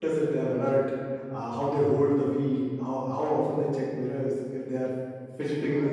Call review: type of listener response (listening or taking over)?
taking over